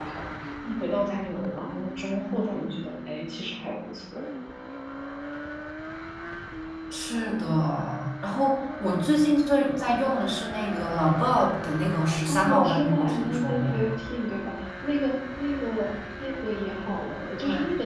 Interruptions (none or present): present